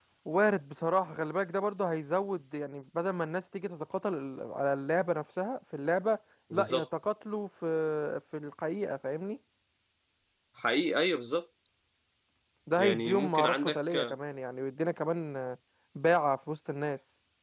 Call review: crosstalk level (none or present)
present